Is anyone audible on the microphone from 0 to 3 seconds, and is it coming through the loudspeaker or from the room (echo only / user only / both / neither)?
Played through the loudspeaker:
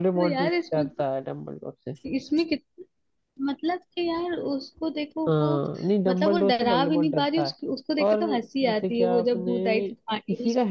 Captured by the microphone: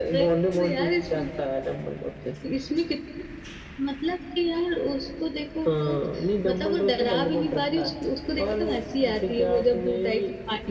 echo only